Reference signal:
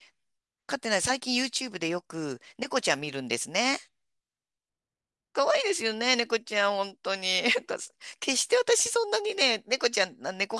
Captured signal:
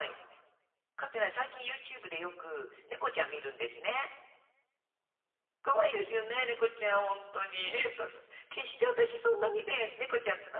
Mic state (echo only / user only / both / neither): echo only